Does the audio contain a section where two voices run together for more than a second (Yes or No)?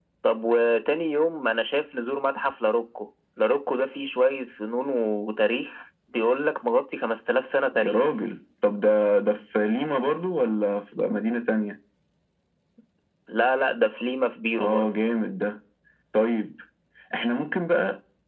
No